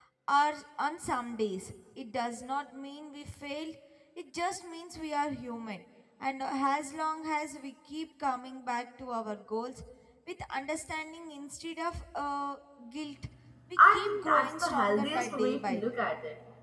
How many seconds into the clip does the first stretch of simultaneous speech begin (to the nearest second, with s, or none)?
14 s